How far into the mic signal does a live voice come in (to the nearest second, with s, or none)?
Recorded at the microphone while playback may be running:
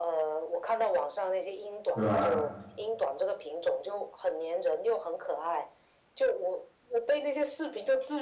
2 s